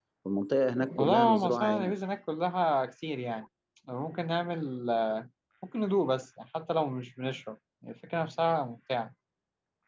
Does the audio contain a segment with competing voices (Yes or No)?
Yes